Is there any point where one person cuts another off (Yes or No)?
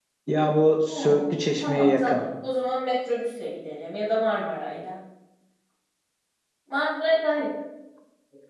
Yes